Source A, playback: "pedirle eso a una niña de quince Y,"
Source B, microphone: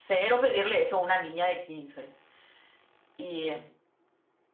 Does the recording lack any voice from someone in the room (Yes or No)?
Yes